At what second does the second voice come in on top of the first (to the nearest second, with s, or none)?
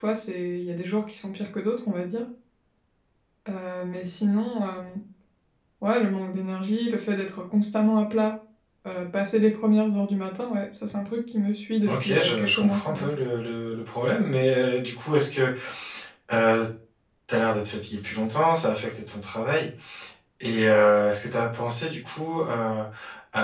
12 s